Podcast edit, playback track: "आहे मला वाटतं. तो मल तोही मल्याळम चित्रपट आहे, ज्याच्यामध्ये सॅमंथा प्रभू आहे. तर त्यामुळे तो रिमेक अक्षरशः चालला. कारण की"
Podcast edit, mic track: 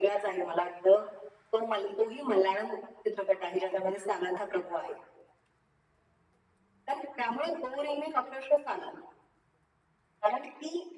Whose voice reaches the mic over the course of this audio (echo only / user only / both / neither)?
echo only